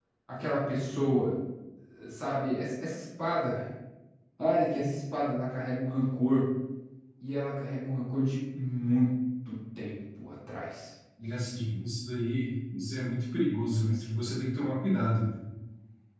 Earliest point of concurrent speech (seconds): none

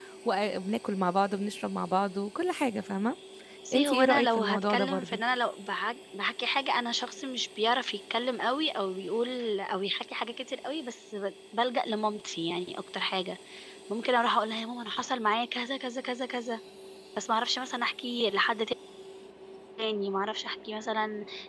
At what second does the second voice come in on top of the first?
3.7 s

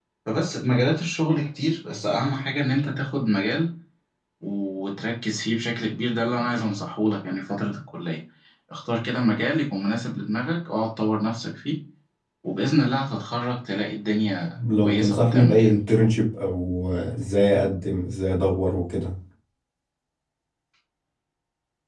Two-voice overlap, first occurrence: 14.8 s

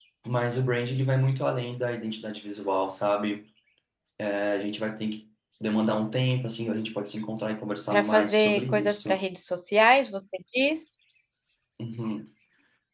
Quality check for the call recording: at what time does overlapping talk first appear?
7.9 s

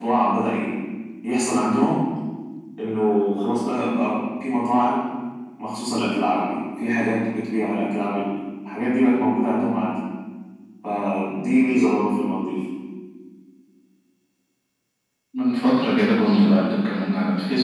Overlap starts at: none

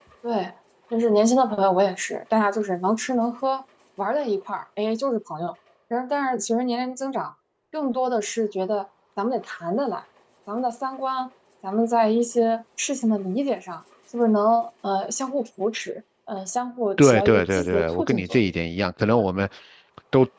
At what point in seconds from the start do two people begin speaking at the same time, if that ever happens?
17.0 s

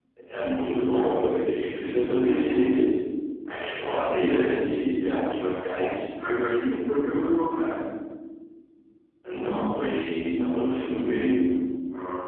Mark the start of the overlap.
none

